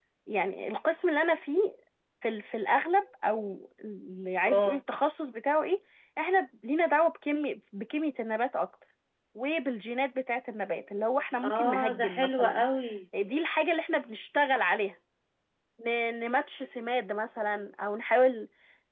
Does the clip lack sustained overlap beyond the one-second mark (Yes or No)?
No